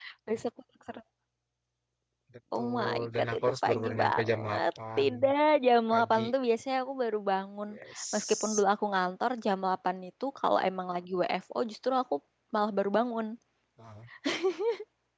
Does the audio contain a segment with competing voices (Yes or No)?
Yes